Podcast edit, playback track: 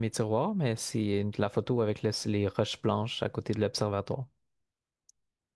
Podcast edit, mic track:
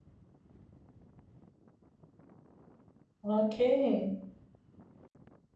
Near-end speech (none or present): present